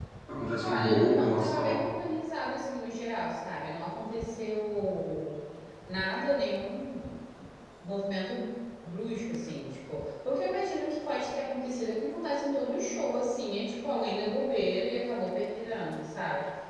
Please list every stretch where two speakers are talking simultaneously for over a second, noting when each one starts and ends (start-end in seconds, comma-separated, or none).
0.6-1.9